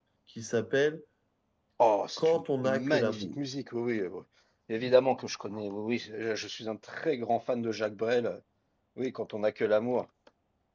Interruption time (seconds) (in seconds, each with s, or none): 2.2 s